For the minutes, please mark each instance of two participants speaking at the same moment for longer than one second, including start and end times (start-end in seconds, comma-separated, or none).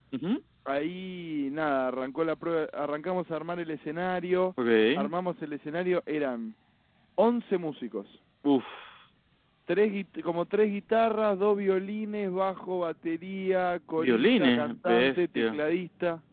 14.0-15.6